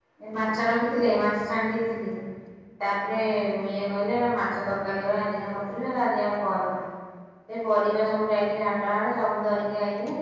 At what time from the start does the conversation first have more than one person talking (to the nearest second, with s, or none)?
none